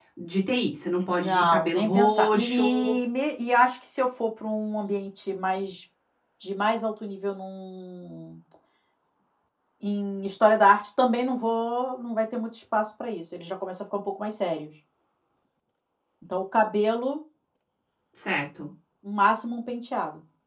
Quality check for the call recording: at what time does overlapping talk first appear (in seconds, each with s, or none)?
1.1 s